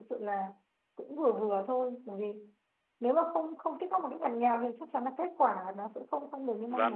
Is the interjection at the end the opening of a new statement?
Yes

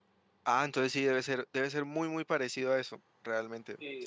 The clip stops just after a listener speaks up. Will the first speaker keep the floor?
No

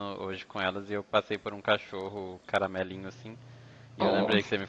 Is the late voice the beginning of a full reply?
No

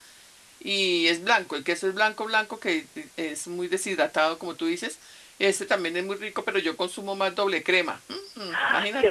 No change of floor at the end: No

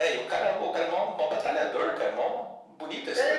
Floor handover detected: Yes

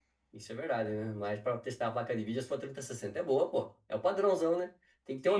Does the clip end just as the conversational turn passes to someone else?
Yes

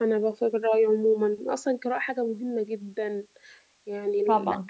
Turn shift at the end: No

